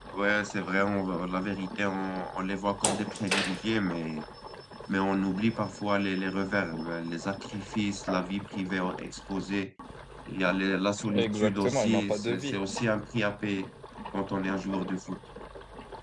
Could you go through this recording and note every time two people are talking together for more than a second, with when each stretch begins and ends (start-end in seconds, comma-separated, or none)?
11.0-12.6